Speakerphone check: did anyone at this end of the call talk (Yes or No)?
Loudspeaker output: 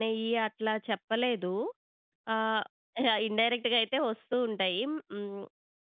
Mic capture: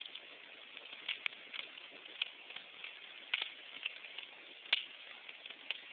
No